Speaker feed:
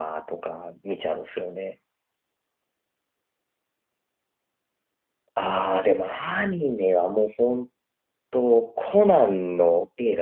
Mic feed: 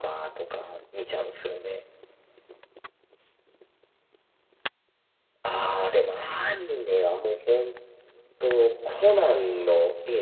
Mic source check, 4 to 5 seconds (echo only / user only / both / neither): neither